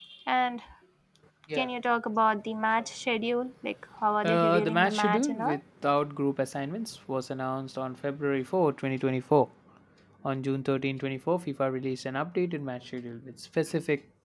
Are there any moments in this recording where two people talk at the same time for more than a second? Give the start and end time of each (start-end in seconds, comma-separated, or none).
4.2-5.6